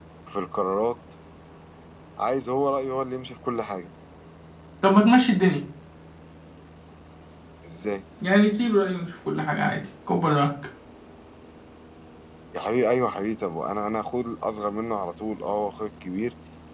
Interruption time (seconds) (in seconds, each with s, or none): none